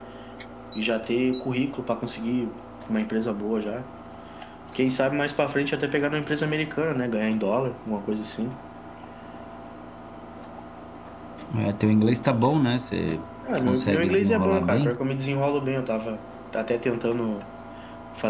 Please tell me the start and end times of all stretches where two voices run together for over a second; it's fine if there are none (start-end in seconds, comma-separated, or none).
13.6-15.0